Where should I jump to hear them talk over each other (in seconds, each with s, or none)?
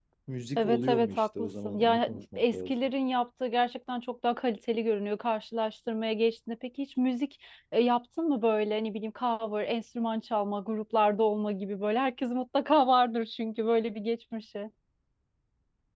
0.6 s